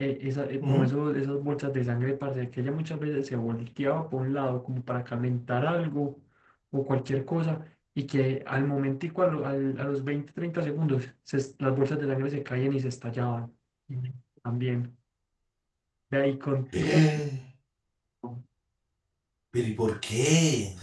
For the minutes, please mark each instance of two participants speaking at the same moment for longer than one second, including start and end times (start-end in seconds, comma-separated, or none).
none